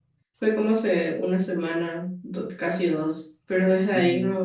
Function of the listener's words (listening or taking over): listening